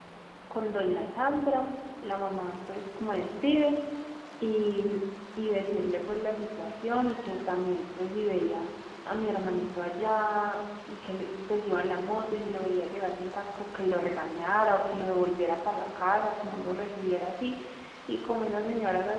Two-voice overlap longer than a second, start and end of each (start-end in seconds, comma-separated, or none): none